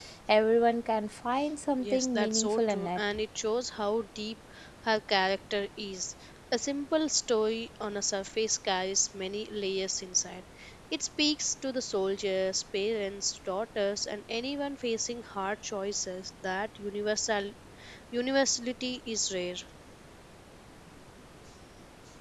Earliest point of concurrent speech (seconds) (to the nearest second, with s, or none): 2 s